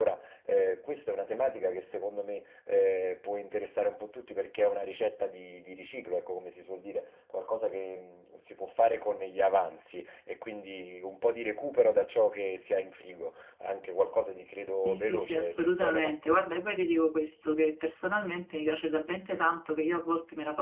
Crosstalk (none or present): present